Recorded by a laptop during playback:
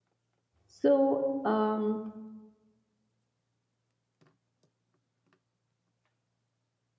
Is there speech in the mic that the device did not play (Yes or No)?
Yes